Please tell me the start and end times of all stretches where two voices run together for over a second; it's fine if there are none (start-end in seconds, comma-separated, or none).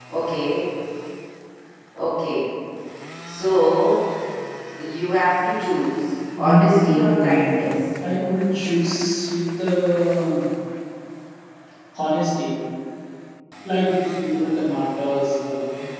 6.4-7.7